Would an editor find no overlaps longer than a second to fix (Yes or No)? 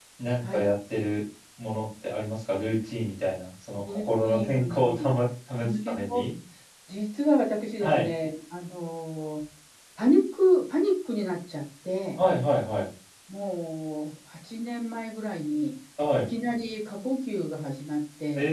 No